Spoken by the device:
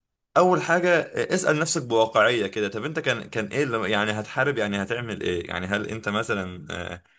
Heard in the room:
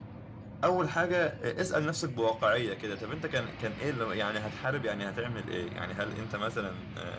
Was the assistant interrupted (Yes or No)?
No